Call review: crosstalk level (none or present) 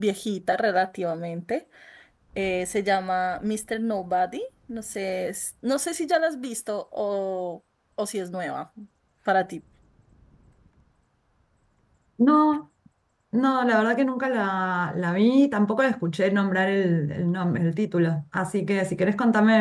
none